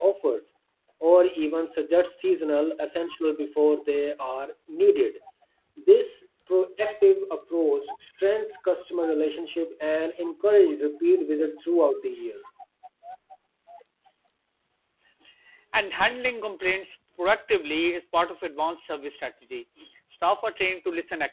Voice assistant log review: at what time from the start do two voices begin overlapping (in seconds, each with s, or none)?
none